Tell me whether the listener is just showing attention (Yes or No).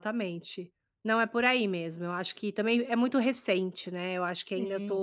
No